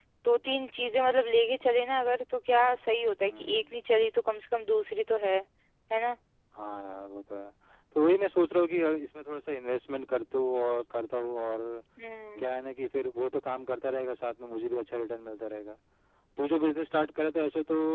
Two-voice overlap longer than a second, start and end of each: none

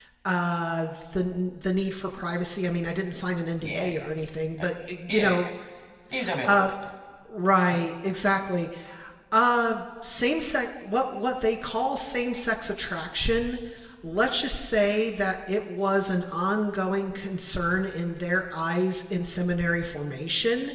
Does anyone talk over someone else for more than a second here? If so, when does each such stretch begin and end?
none

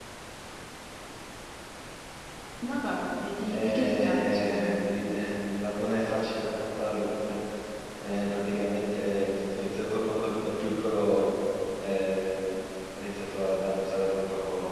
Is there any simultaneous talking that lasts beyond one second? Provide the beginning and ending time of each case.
3.5-4.9

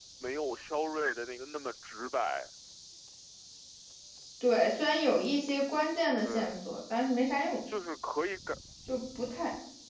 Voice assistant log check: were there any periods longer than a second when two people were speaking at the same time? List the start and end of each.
none

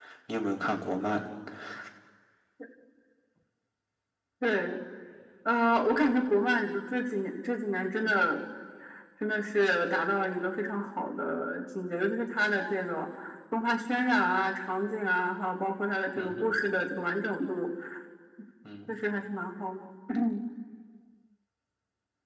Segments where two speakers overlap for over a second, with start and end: none

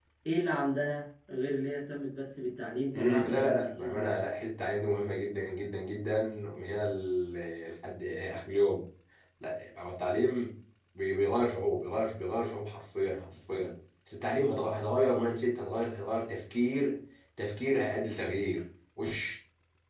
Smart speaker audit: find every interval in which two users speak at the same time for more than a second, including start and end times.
3.0-4.2

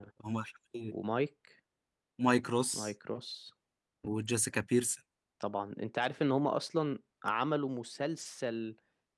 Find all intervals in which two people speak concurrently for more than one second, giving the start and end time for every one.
none

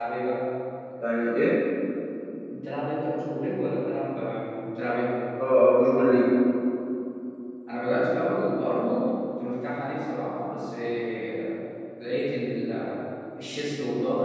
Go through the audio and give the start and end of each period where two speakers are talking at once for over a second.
none

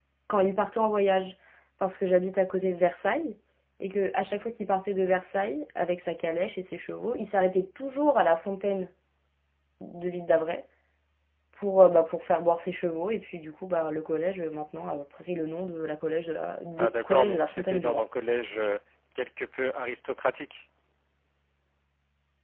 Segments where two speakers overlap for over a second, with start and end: 16.8-18.0

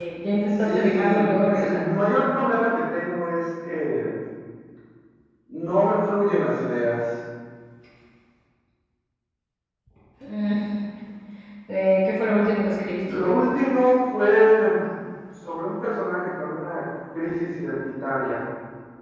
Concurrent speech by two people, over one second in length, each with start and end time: 0.6-1.8

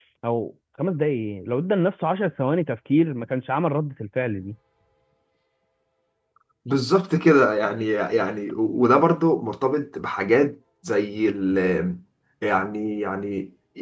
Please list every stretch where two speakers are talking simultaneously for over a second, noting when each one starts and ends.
none

